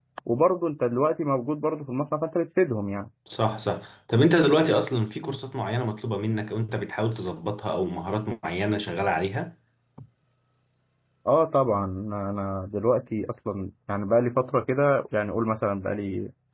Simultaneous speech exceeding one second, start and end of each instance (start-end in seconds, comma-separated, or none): none